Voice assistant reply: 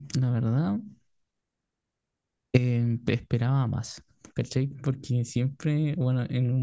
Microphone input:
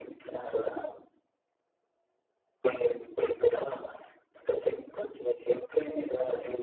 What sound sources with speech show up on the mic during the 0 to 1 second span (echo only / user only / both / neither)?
echo only